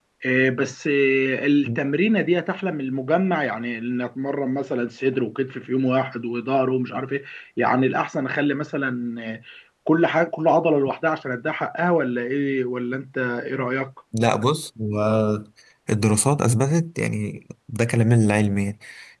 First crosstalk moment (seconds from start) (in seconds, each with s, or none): none